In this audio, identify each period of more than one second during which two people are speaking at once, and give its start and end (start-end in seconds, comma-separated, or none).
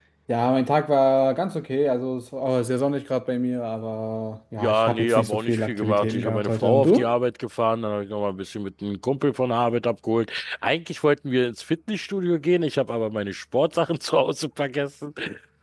4.6-7.1